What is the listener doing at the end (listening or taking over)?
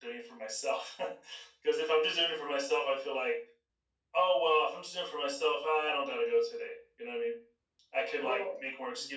listening